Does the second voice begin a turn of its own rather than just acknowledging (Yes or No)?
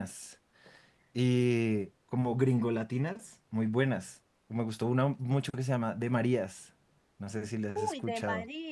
Yes